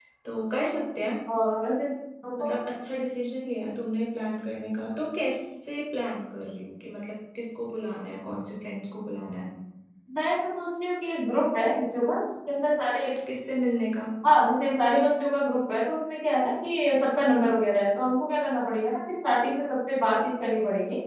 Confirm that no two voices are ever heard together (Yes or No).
Yes